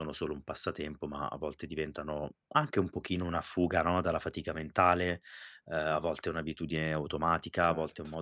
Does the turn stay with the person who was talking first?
Yes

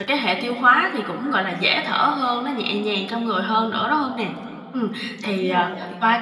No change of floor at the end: Yes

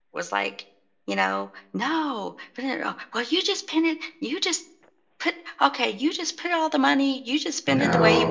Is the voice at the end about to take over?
No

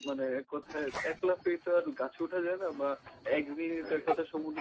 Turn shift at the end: No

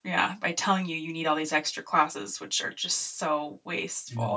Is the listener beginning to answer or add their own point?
Yes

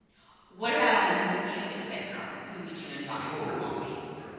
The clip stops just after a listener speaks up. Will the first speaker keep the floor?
No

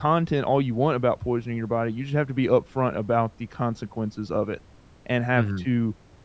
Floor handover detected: No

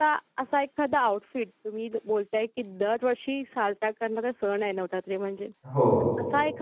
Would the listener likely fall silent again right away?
Yes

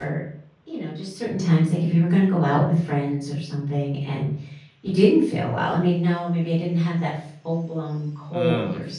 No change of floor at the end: Yes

